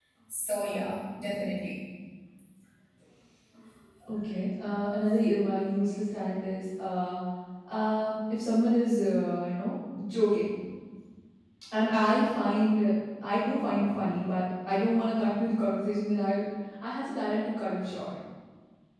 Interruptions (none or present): none